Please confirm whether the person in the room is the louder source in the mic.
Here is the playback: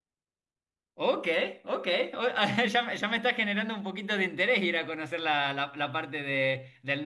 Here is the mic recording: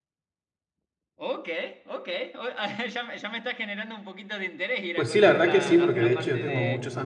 Yes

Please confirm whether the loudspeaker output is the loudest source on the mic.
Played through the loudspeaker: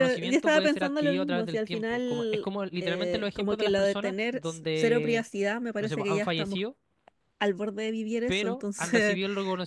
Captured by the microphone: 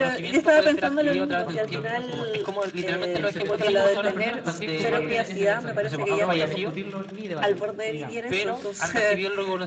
Yes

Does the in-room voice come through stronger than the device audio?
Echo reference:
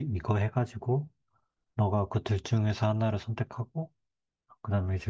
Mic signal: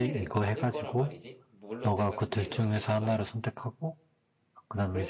No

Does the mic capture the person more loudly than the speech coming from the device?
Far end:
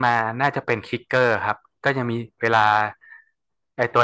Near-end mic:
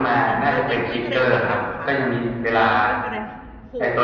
No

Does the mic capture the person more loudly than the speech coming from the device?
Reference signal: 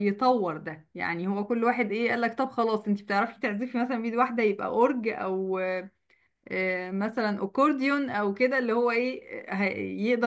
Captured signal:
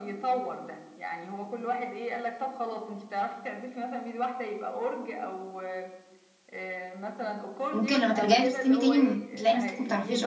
Yes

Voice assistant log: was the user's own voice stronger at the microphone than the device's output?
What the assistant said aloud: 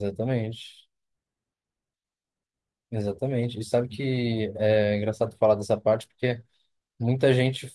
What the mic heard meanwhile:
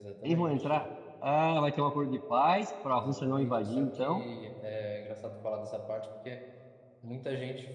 Yes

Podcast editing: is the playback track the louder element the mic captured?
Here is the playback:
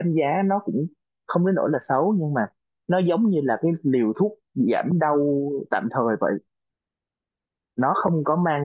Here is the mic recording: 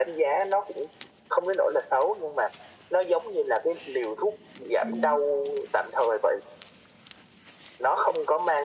Yes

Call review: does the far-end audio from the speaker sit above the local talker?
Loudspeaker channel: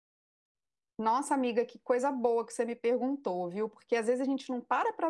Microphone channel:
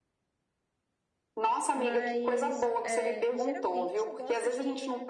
Yes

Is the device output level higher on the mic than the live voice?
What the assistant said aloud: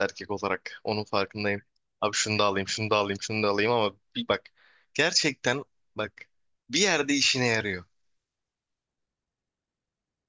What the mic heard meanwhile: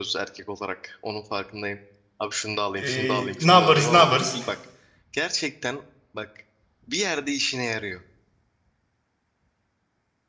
No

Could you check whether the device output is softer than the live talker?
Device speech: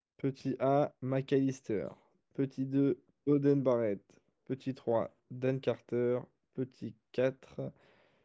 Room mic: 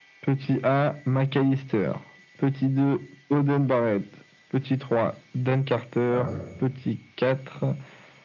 No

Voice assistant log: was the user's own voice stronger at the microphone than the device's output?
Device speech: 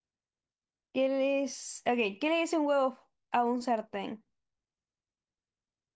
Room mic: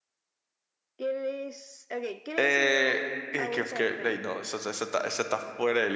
Yes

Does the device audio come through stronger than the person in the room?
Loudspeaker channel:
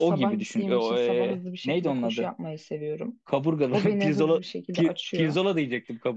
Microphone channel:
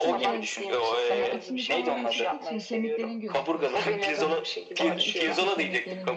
Yes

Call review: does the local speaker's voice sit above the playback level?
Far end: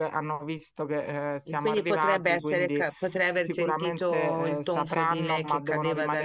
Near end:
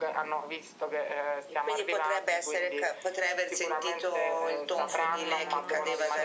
No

